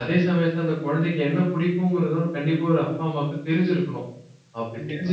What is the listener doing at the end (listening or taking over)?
listening